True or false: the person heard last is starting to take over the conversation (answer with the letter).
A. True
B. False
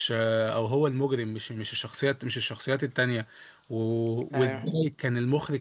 B